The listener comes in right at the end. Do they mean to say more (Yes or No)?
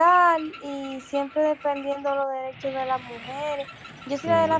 No